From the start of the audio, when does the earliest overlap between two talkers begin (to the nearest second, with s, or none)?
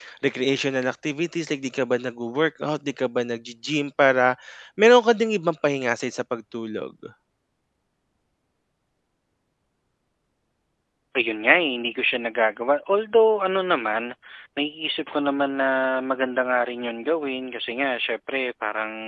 none